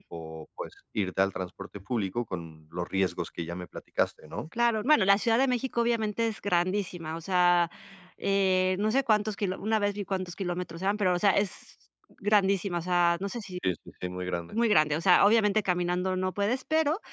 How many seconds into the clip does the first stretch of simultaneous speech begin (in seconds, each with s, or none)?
none